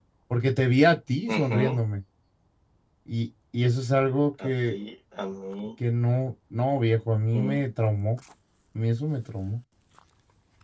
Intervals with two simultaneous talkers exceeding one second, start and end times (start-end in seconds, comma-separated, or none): none